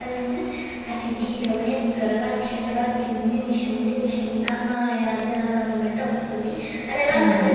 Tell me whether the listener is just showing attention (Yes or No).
Yes